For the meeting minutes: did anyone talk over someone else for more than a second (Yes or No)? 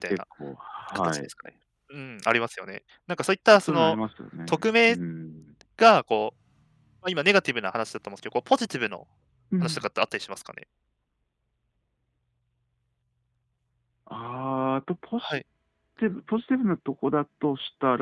No